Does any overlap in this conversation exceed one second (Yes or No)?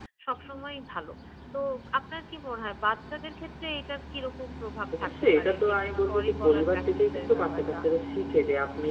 Yes